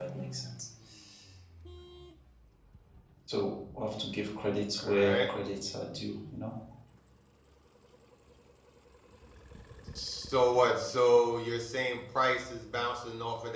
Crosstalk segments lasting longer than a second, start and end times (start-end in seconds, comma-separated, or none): none